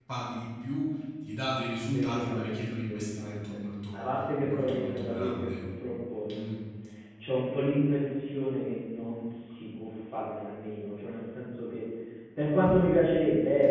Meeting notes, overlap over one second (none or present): present